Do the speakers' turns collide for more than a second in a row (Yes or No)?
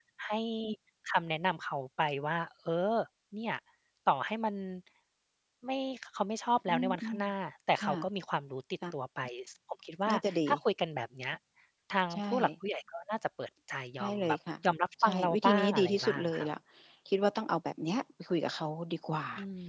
Yes